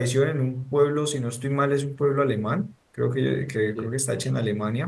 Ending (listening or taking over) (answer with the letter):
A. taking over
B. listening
B